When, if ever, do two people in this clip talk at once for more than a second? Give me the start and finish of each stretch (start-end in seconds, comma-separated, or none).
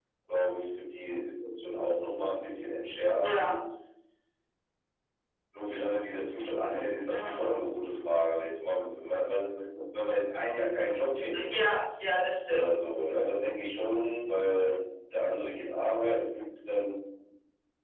none